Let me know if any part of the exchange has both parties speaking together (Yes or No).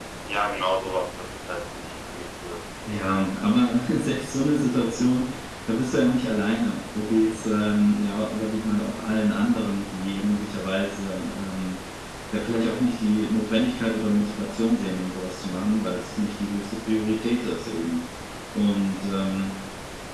No